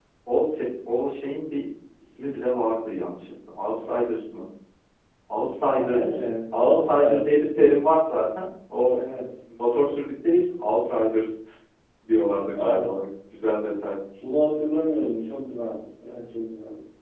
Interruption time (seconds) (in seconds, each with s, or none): 5.7 s